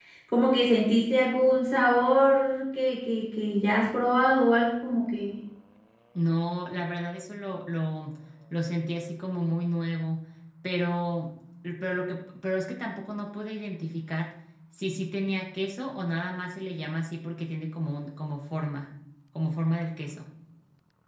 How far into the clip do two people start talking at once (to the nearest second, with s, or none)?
none